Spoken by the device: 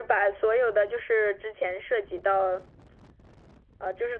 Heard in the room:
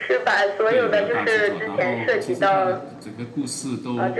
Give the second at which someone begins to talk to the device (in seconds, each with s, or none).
0.7 s